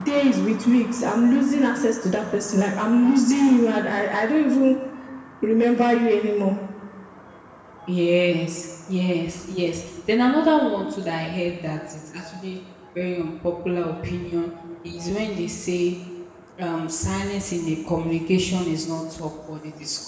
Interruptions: none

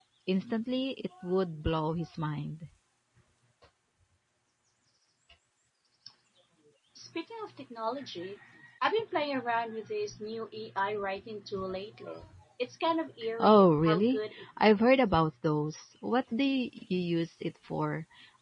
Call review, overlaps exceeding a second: present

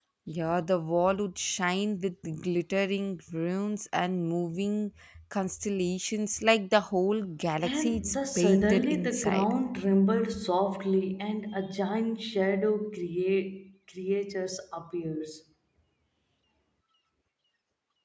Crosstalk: present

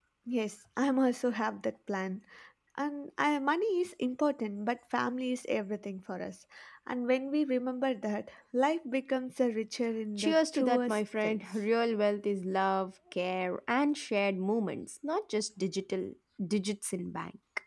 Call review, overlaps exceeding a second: present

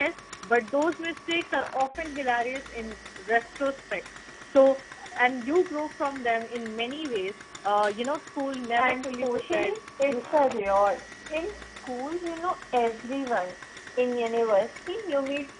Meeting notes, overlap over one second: present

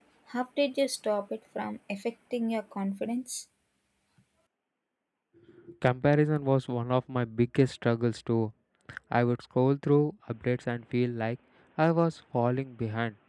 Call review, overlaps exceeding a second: none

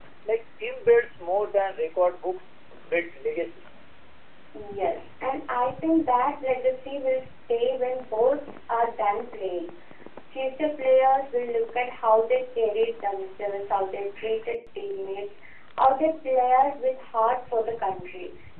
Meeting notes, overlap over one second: none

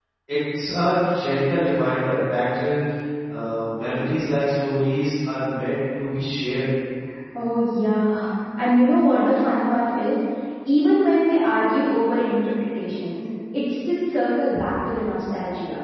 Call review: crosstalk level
none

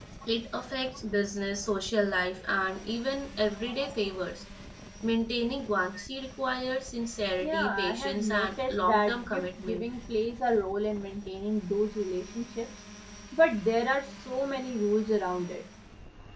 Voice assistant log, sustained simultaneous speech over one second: present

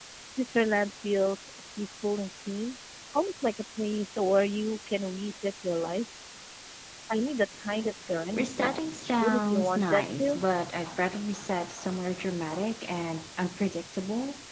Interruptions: present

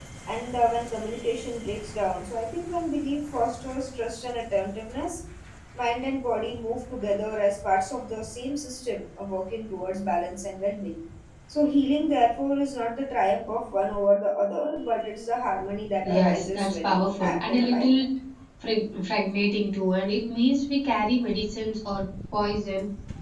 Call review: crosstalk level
present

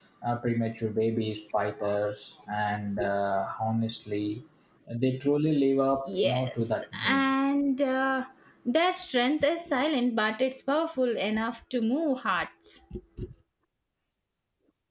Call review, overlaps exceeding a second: present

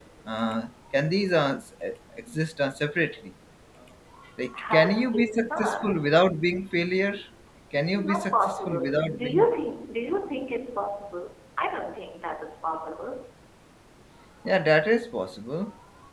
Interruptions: present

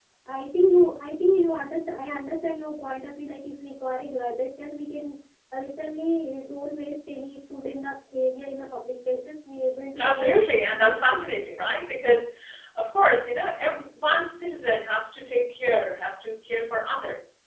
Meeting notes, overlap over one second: present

